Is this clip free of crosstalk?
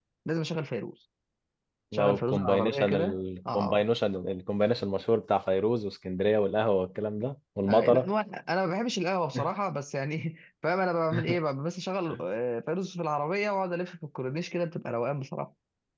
No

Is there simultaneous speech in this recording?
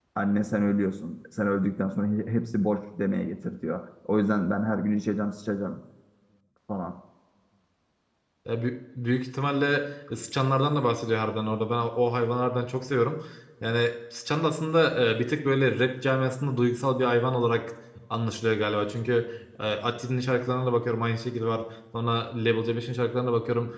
No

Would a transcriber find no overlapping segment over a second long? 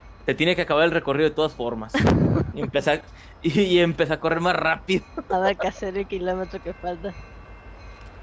Yes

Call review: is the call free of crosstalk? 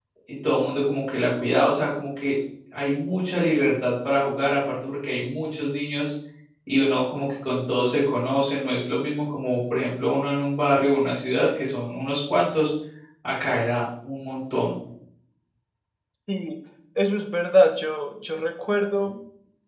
Yes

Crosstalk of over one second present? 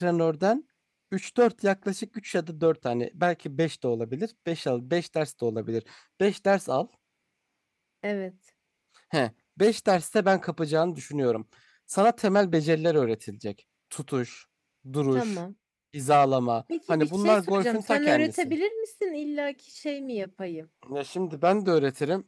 Yes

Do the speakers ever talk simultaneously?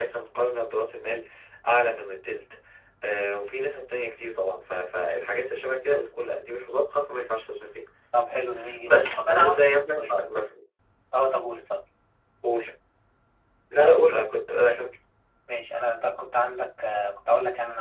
Yes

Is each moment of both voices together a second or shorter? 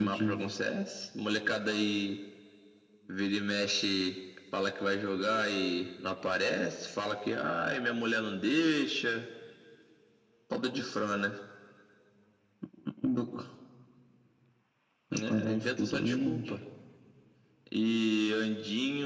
No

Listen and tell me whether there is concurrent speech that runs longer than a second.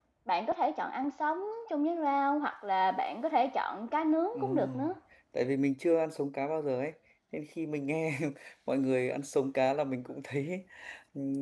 No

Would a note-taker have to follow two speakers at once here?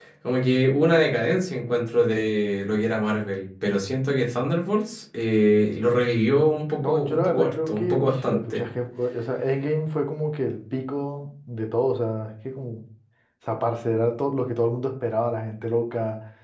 Yes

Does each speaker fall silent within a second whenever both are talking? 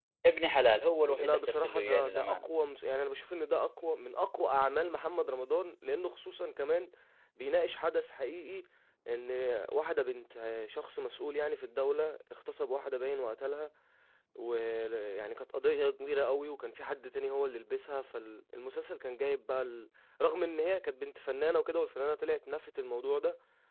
No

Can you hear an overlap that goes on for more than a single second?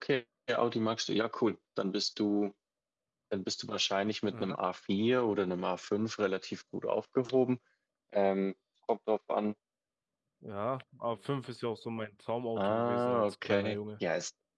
Yes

